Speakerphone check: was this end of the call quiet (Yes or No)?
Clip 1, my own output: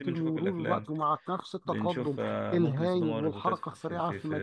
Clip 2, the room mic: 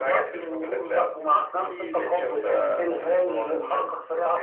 No